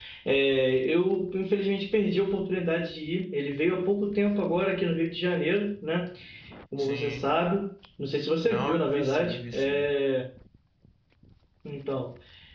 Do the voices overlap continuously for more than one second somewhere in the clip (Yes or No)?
Yes